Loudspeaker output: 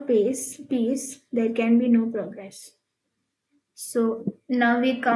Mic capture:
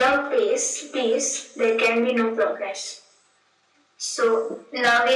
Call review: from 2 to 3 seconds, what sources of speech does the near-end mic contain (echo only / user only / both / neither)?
echo only